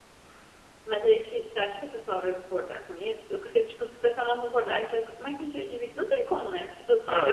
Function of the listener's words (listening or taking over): taking over